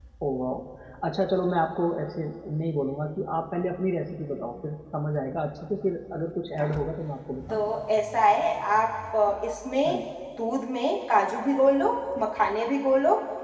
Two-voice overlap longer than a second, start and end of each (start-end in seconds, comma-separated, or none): none